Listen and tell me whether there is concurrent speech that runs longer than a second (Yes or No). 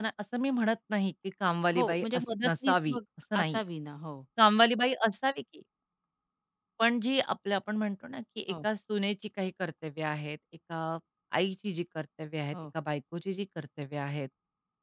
Yes